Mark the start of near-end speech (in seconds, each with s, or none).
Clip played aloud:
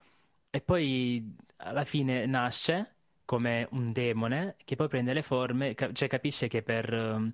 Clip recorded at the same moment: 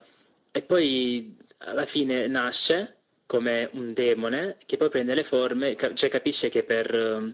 none